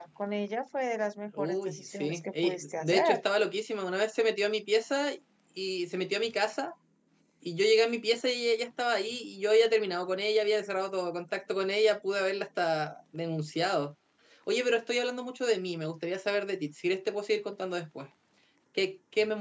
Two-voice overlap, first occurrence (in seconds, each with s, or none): 1.3 s